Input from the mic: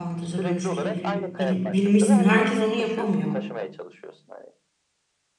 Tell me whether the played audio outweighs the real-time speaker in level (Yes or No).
No